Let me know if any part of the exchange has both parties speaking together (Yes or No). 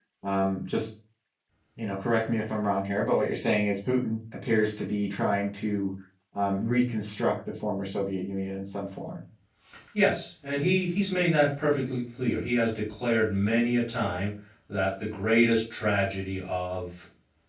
No